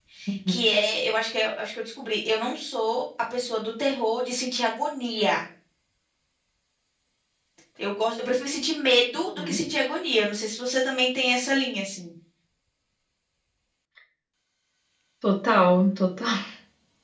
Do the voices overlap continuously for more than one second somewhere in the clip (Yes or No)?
No